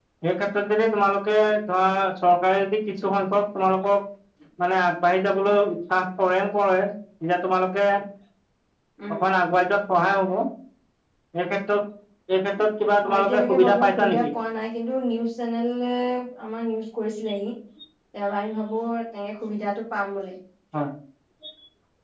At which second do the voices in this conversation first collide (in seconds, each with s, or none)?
13.0 s